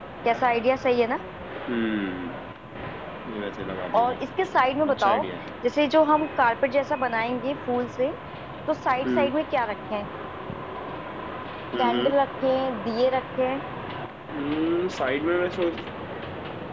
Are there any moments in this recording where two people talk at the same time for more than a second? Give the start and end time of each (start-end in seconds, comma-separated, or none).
none